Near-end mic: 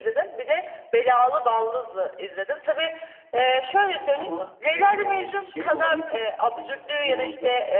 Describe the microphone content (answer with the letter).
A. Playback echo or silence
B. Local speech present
B